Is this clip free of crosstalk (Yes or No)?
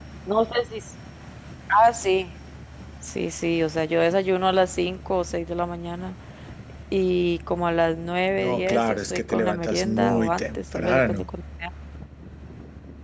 No